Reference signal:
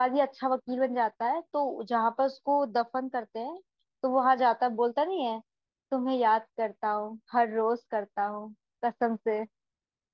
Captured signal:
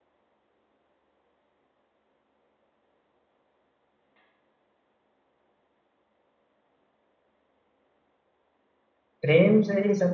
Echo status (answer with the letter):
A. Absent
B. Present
A